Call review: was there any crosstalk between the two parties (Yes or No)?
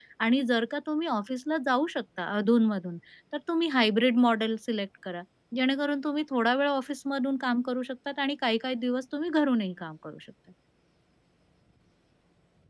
No